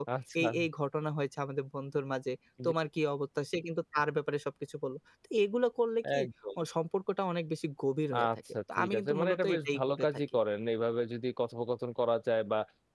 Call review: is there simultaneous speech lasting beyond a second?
Yes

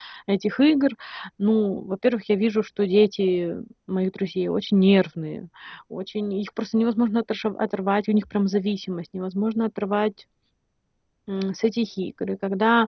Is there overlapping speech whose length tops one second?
No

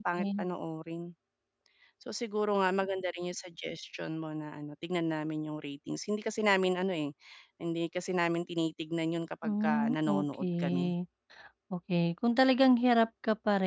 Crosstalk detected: Yes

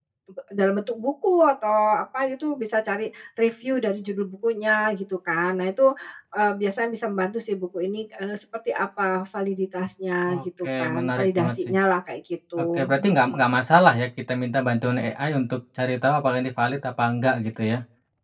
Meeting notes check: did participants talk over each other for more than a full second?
Yes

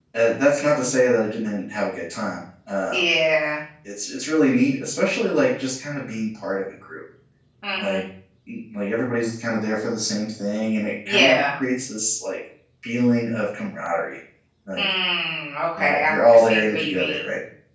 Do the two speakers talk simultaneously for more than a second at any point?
Yes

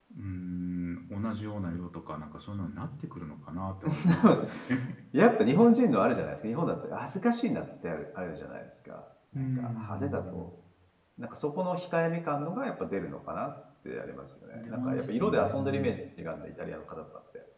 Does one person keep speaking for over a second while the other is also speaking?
Yes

